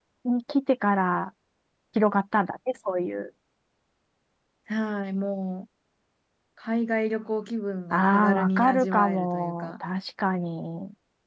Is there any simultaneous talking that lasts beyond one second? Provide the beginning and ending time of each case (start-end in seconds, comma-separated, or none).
7.9-9.7